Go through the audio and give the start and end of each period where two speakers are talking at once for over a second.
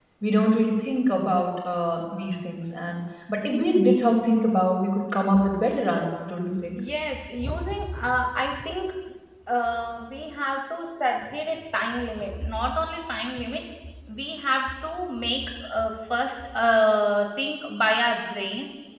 none

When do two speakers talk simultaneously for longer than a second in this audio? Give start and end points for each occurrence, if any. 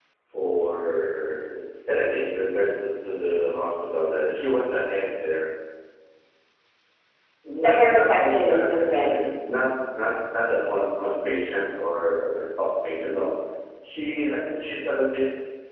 7.6-9.2

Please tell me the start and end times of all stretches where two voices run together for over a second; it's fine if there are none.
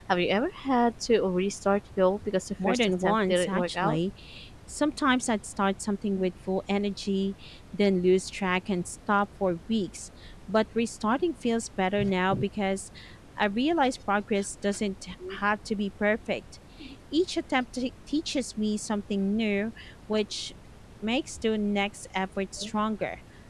2.6-4.0

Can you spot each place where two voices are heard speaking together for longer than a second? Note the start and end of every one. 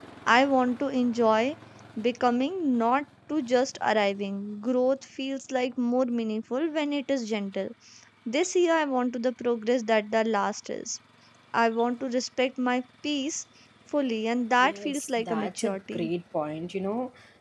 14.6-16.1

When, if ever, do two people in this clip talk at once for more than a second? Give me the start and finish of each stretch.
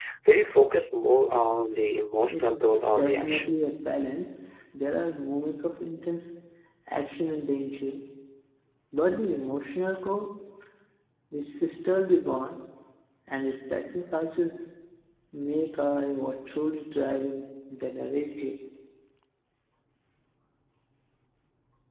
2.2-3.5

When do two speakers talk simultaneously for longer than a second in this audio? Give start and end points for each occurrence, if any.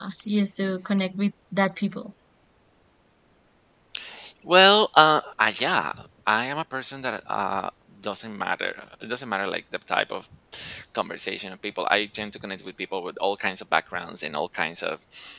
none

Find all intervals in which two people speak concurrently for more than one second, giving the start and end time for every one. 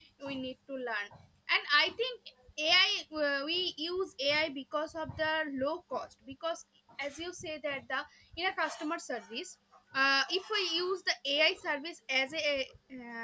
none

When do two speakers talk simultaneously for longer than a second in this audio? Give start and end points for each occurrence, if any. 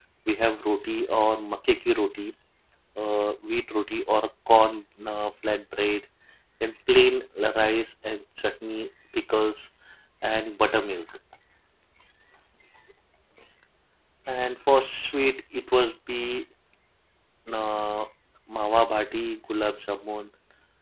none

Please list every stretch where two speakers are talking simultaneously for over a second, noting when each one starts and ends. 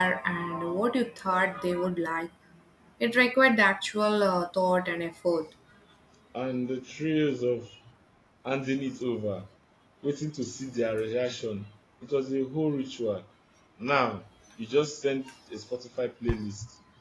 none

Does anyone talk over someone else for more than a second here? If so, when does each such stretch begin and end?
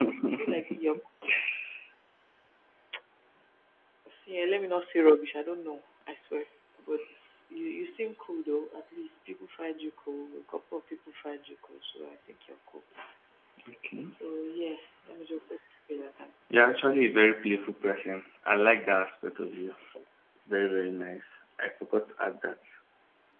none

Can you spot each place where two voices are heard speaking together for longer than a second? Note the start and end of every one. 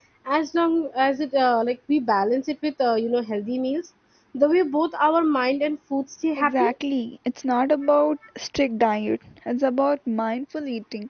none

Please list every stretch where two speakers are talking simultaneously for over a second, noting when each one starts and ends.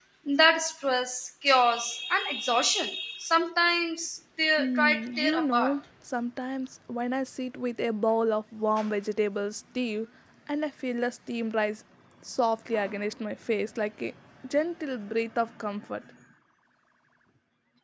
4.6-5.8

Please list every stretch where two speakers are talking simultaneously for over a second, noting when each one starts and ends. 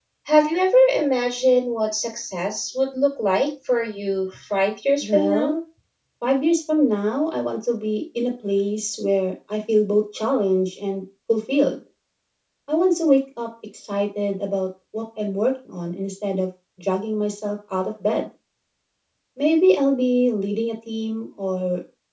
none

